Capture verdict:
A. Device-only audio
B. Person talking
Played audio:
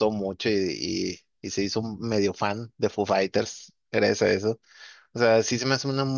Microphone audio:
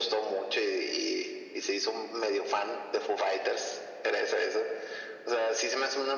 A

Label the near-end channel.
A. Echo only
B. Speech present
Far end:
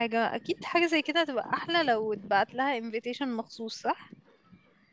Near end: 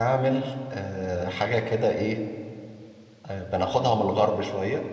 B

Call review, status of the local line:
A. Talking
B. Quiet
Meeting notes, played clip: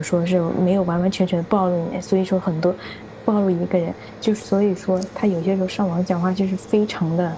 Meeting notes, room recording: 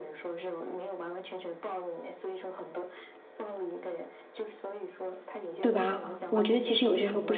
A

